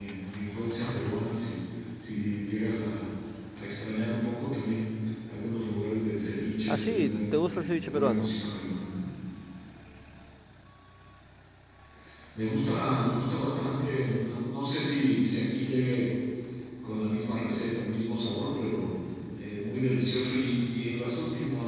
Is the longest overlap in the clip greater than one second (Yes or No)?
Yes